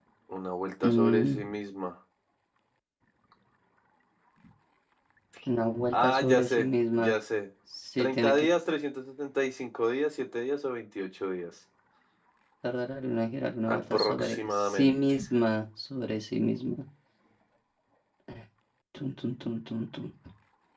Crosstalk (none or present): present